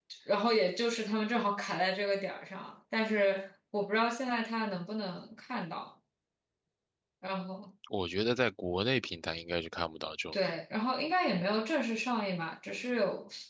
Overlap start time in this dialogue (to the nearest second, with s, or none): none